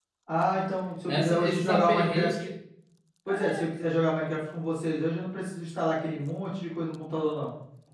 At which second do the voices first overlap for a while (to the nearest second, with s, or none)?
1 s